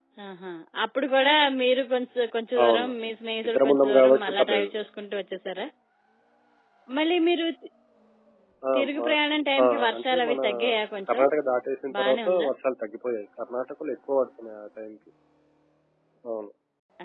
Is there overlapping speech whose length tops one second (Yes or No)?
Yes